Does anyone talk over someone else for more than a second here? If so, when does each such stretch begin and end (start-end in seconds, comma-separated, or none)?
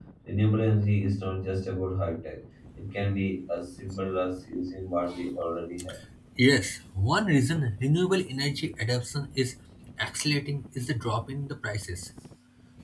none